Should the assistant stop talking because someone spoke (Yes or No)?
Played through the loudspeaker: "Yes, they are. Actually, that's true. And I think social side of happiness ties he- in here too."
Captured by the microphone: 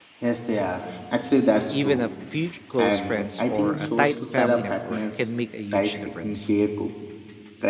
Yes